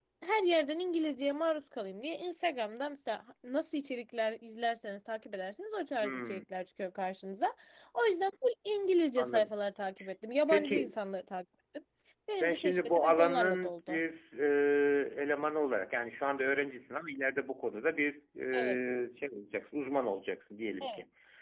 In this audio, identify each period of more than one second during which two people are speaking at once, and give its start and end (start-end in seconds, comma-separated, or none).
12.4-14.0